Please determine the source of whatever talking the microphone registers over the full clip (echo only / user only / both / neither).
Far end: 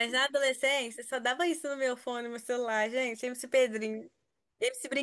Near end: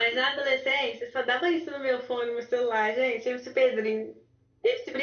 echo only